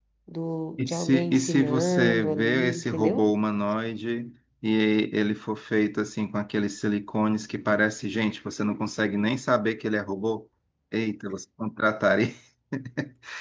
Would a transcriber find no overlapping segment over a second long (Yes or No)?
No